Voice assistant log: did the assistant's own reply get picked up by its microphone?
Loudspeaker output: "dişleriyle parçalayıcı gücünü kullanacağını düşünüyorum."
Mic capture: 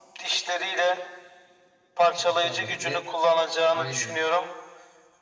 Yes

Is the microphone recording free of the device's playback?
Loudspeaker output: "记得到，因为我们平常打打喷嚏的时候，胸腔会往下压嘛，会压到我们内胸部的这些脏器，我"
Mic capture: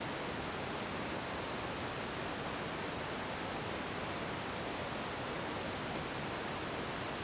Yes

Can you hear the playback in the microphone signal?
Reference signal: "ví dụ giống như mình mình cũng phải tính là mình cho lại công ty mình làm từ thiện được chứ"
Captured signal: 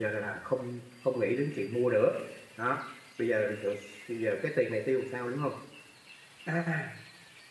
No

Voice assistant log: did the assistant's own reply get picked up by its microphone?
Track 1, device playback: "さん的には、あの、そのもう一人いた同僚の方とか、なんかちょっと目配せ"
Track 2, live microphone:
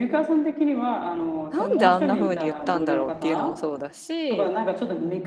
Yes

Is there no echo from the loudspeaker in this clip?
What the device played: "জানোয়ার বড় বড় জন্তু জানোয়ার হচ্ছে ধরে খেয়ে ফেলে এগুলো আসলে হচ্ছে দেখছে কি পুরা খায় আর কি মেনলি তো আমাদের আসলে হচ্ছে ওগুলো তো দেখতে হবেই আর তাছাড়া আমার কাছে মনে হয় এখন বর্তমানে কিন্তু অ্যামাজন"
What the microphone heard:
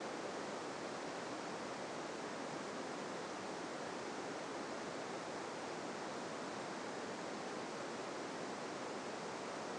Yes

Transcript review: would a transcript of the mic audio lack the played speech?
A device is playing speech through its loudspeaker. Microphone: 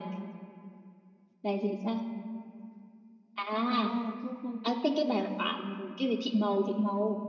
No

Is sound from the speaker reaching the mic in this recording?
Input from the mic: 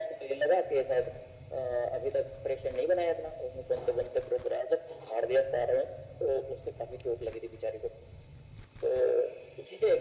Yes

